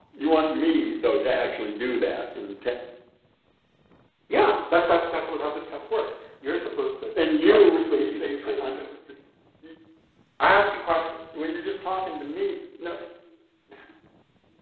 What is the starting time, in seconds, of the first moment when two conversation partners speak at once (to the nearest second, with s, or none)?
7 s